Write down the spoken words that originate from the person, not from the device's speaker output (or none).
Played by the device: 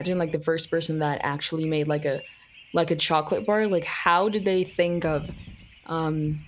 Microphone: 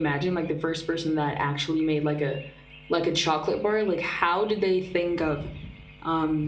none